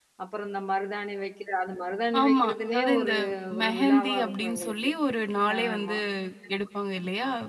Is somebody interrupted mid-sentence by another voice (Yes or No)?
Yes